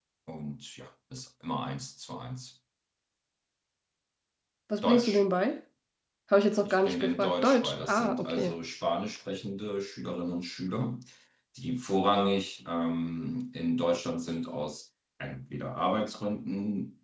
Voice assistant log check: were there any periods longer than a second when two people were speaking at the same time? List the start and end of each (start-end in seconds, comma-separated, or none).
6.6-8.6